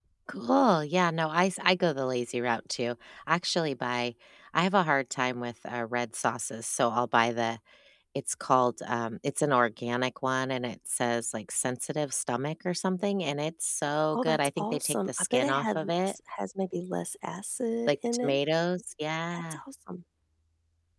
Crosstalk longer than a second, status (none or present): present